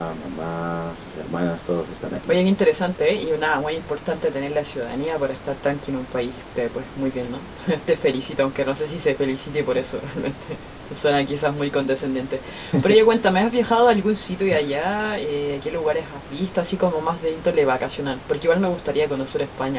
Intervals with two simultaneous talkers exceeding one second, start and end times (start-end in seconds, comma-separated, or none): none